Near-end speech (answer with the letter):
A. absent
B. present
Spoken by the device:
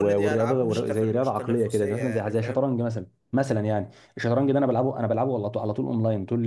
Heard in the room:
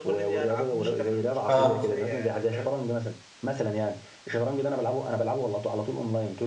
B